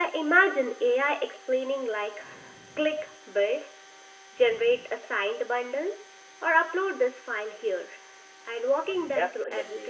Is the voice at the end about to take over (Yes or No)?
Yes